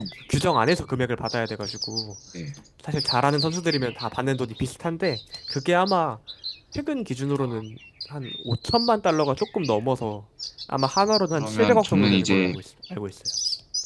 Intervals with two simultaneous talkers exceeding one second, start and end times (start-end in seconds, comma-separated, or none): 11.3-12.5